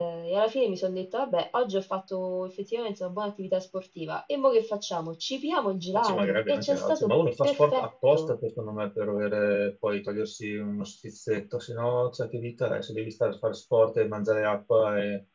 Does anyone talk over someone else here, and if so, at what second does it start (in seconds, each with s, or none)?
5.9 s